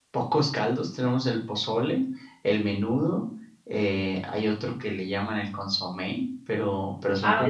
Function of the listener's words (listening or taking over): taking over